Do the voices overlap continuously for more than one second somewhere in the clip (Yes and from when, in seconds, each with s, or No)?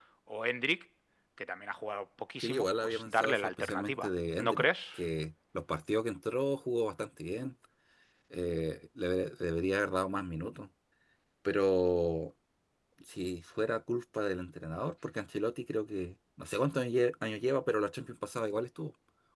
Yes, from 2.4 s